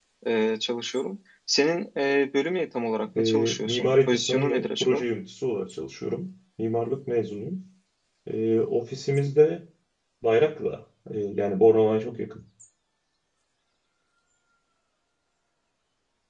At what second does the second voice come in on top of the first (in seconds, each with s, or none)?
3.1 s